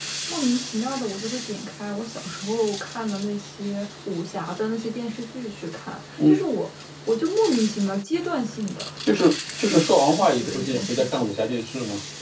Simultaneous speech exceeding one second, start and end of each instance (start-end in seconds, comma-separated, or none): 9.7-11.2